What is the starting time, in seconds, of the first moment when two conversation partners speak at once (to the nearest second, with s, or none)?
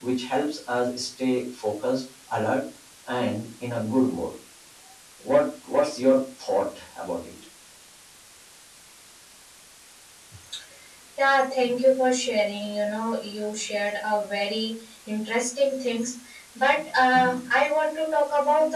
none